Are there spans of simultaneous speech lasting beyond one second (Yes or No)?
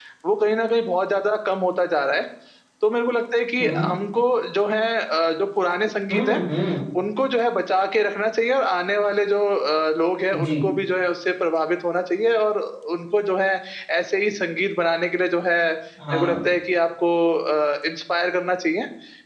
No